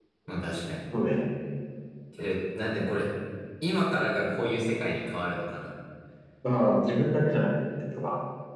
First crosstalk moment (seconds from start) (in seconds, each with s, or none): none